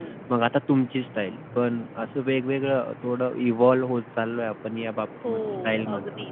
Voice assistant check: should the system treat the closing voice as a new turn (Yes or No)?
Yes